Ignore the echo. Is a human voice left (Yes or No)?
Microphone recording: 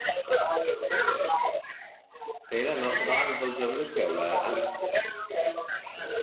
Yes